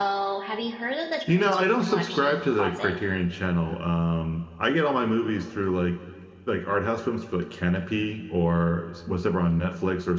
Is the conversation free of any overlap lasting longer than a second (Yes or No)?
No